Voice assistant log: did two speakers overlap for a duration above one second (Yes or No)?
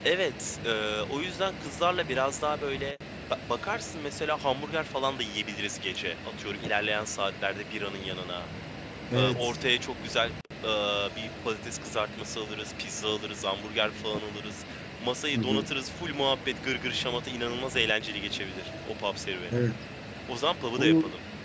No